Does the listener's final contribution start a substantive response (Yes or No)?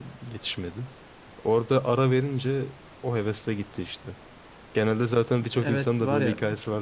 Yes